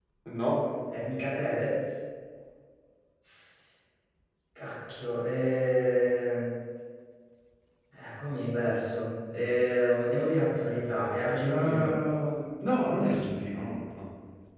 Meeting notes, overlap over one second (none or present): none